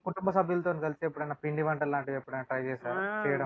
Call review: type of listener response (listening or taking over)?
taking over